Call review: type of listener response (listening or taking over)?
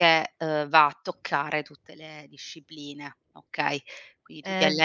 taking over